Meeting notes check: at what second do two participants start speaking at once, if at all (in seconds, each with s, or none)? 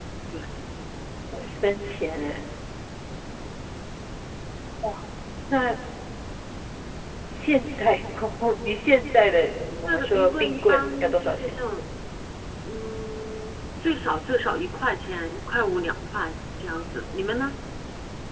9.7 s